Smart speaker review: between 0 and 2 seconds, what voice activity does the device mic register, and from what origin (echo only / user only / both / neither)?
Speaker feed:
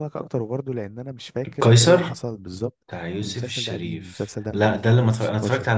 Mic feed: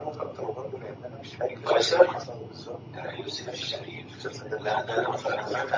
echo only